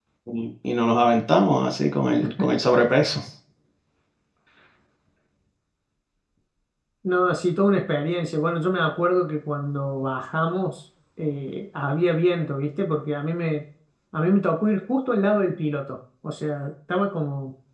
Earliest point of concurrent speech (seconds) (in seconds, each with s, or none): none